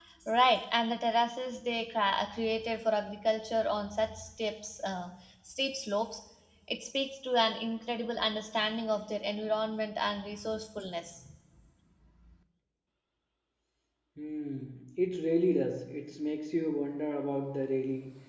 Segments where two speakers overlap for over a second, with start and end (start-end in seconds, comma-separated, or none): none